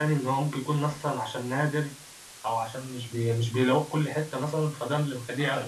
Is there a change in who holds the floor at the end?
Yes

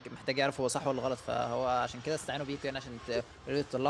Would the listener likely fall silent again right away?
Yes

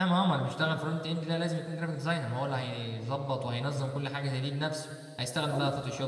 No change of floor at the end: Yes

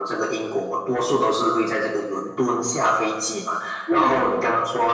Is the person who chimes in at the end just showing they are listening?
Yes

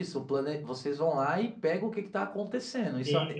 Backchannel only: No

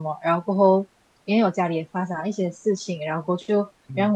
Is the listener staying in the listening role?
Yes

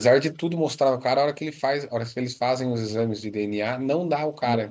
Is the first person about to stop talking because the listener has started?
Yes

